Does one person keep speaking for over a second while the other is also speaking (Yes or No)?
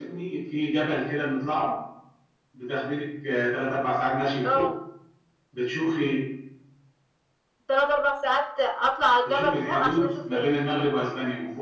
Yes